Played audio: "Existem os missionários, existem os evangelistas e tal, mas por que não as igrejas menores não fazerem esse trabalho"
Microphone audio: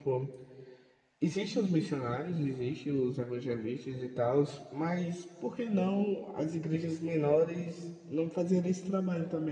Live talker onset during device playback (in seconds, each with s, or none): none